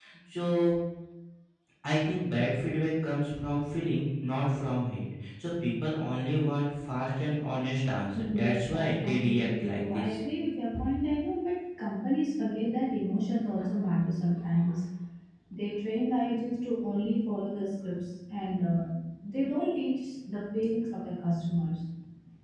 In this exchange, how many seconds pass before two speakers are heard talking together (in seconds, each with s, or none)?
8.1 s